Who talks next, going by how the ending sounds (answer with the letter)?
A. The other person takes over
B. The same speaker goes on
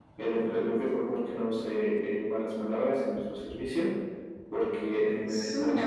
A